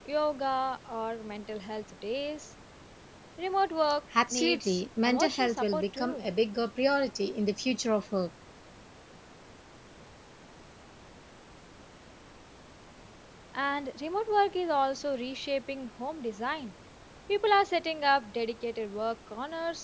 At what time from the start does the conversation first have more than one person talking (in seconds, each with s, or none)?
4.1 s